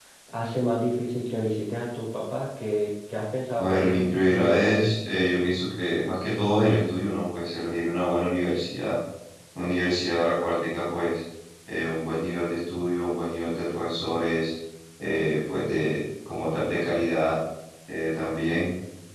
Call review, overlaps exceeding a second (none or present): present